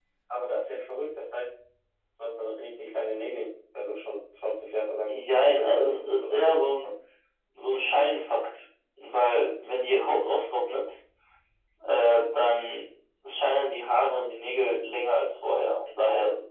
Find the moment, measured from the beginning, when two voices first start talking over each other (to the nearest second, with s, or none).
5 s